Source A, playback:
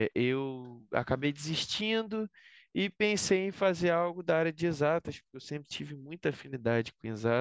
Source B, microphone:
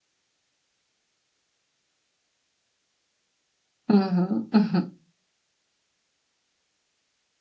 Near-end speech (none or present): present